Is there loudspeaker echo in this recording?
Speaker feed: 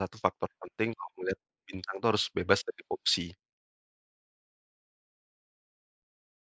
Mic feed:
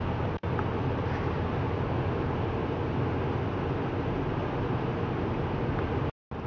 No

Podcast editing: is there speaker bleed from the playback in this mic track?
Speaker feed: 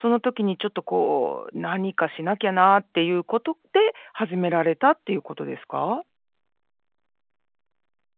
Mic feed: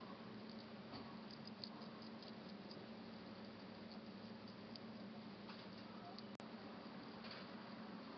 No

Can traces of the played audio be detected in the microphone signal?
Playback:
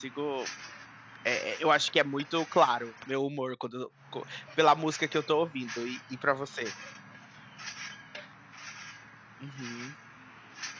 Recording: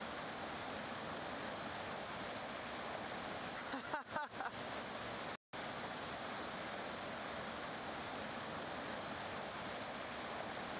No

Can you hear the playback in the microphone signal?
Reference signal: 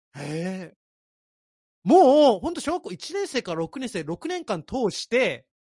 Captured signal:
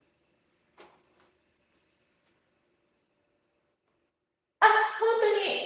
No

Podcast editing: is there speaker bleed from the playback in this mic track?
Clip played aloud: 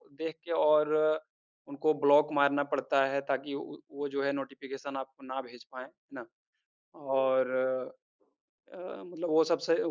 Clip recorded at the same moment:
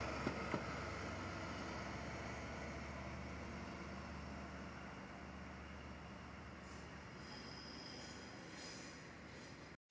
No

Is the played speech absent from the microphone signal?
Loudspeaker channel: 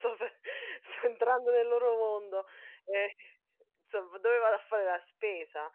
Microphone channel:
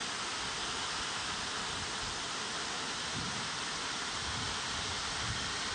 Yes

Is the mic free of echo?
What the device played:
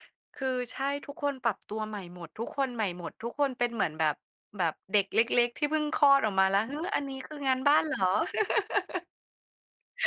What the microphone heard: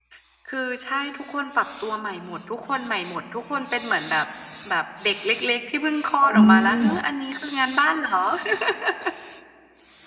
No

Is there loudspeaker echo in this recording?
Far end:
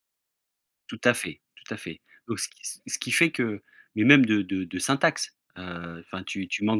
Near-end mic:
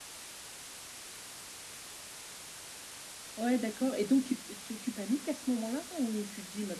No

